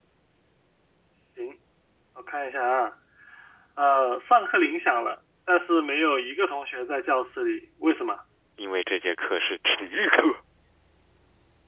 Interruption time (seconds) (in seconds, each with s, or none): none